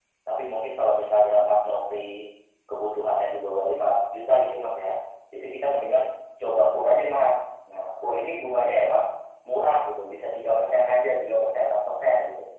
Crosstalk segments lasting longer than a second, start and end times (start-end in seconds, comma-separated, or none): none